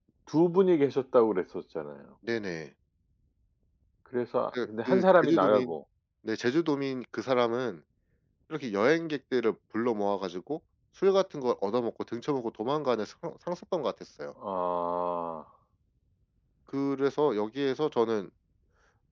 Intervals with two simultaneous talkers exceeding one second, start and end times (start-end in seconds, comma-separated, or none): 4.5-5.8